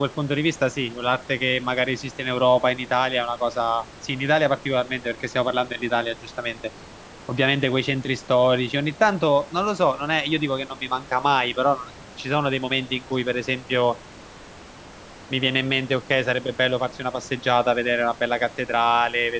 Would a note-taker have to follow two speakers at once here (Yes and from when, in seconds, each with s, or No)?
No